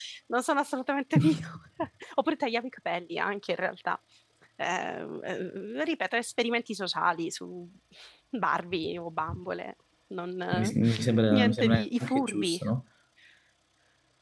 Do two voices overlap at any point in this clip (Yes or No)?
Yes